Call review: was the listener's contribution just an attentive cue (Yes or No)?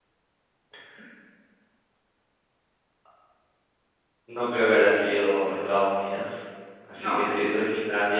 Yes